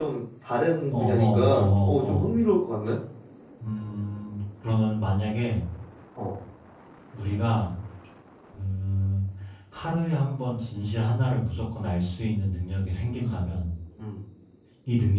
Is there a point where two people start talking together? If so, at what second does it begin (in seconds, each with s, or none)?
0.9 s